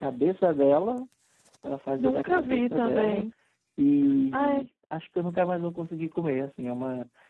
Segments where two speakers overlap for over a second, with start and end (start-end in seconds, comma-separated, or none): 2.0-3.3